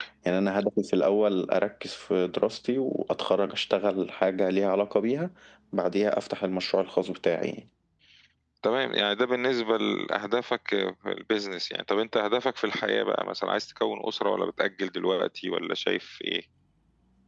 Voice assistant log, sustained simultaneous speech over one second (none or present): none